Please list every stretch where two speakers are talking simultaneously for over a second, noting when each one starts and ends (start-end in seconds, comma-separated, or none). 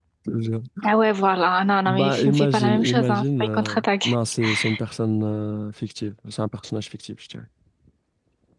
1.9-4.2